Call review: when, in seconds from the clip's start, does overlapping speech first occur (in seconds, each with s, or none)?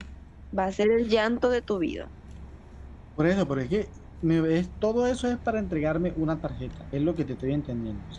none